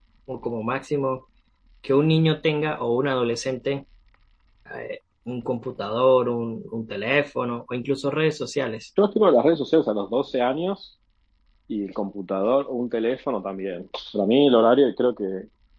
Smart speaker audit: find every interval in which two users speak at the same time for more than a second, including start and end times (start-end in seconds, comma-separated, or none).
none